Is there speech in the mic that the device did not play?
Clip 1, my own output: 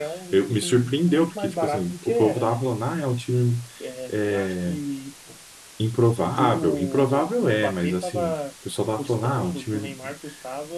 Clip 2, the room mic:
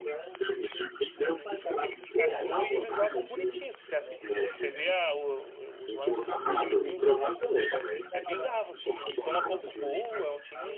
Yes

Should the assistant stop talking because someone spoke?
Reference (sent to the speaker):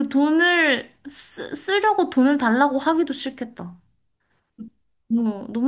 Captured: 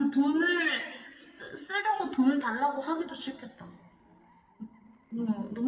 No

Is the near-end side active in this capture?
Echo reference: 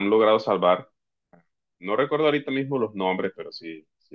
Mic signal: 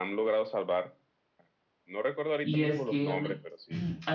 Yes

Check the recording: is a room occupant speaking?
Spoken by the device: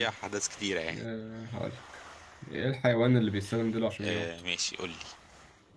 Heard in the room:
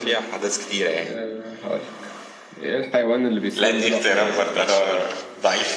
Yes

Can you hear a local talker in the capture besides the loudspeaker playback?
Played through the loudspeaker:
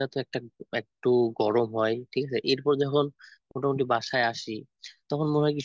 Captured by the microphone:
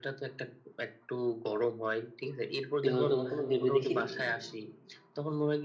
Yes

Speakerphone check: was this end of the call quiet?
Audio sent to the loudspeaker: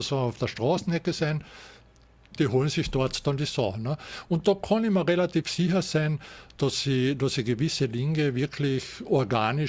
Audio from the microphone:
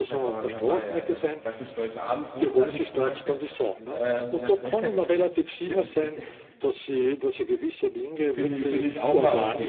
No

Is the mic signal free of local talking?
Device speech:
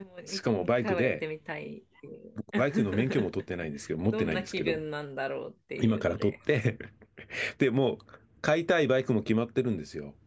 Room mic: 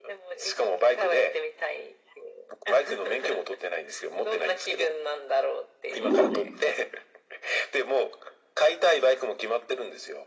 No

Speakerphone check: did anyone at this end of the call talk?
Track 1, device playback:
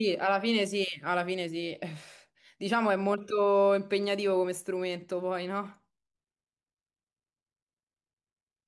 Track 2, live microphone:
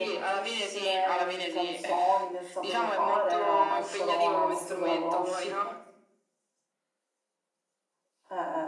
Yes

